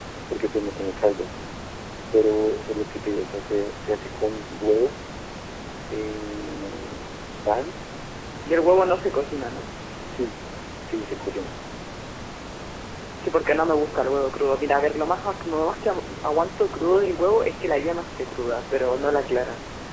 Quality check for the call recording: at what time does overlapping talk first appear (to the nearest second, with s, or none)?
none